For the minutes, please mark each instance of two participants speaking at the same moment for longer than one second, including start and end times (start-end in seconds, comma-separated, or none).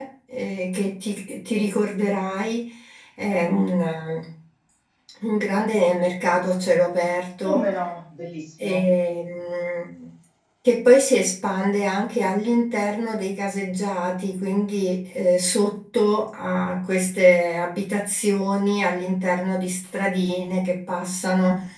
none